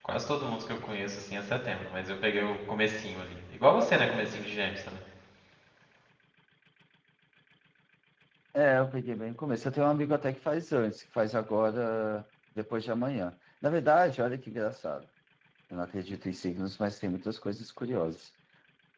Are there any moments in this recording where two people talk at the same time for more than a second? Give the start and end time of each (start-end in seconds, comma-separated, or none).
none